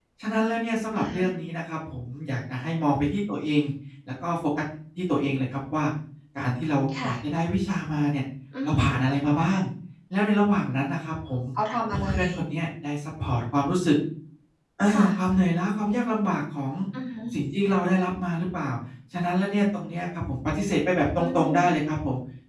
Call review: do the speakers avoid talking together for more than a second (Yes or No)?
Yes